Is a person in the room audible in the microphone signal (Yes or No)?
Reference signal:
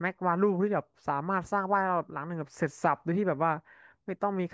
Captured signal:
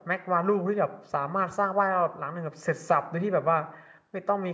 No